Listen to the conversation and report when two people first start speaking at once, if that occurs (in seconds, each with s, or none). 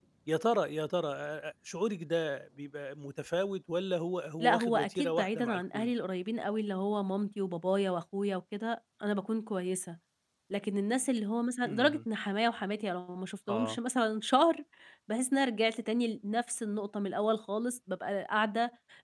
4.4 s